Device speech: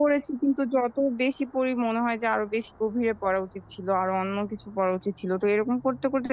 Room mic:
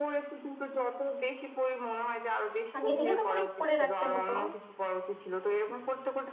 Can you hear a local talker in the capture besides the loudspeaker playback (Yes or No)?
Yes